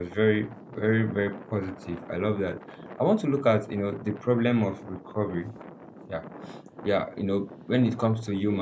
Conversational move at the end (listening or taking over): listening